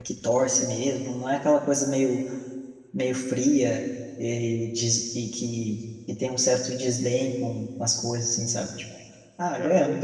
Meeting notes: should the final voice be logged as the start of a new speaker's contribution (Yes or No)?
Yes